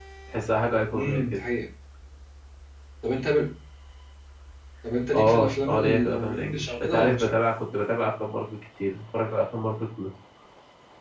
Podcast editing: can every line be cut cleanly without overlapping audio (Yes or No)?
No